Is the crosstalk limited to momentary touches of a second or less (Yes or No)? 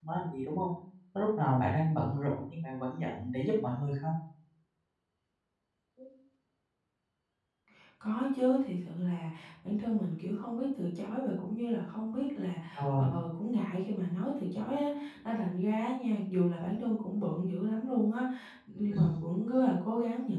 Yes